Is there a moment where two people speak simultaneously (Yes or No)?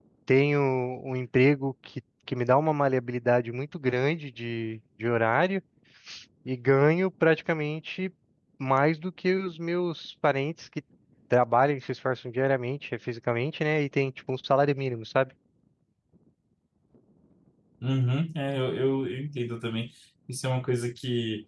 No